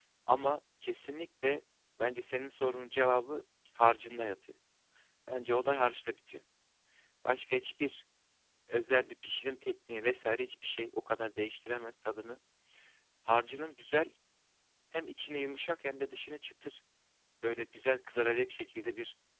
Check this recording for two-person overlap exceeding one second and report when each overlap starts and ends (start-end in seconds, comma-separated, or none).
none